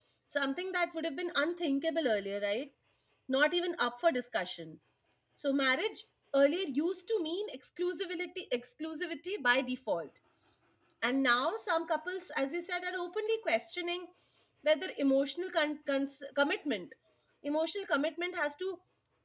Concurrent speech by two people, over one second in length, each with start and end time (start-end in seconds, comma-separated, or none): none